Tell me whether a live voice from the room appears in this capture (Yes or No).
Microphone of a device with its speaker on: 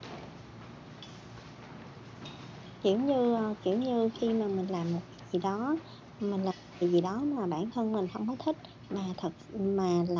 Yes